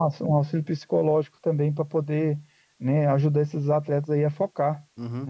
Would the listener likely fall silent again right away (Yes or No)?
No